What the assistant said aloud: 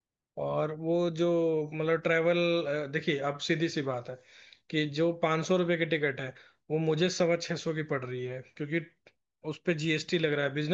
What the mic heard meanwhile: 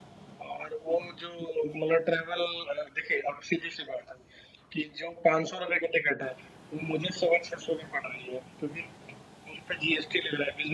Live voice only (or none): none